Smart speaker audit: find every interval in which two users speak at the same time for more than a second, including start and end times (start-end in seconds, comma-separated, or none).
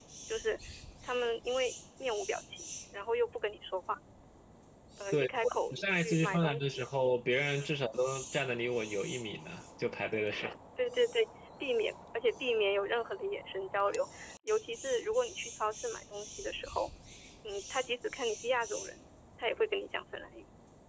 5.1-6.8